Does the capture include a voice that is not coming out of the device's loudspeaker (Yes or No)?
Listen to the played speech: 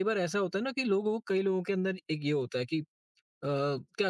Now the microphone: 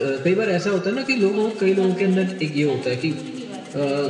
Yes